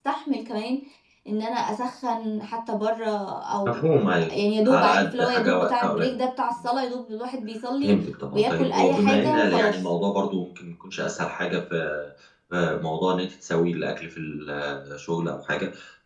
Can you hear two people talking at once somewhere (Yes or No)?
Yes